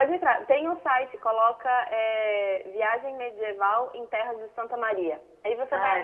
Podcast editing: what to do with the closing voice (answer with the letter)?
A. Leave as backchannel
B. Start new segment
A